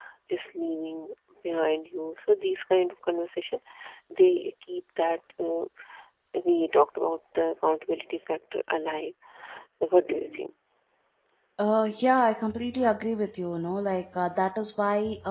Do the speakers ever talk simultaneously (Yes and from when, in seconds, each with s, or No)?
No